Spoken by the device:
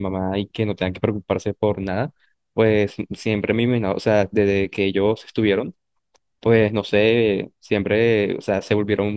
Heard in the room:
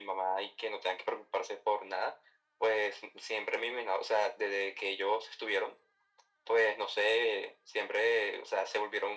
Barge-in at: none

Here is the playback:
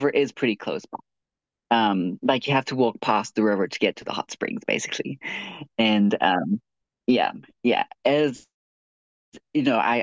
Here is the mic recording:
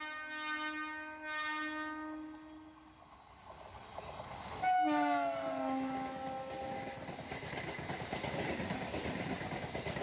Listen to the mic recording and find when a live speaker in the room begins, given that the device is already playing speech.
none

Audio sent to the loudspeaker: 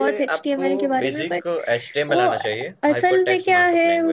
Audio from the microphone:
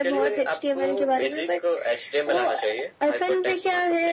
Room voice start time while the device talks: none

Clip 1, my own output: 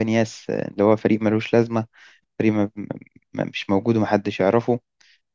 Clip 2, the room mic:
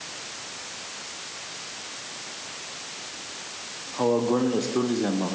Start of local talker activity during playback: 4.0 s

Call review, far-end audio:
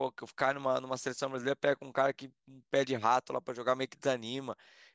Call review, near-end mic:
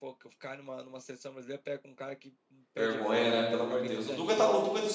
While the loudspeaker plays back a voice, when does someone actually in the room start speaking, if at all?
2.8 s

